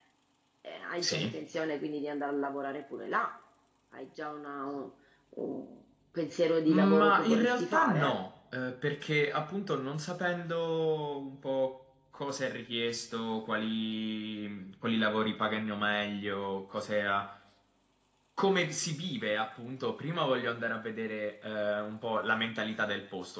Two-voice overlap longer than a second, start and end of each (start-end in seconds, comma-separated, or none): 6.7-8.2